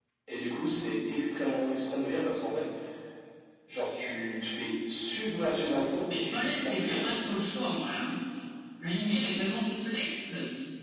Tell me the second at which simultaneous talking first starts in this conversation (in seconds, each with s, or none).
6.1 s